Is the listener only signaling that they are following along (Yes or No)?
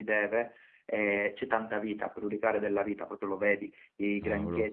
Yes